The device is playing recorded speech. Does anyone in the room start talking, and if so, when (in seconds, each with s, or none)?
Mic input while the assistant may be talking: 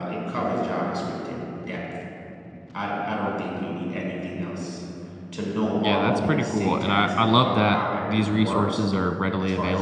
5.8 s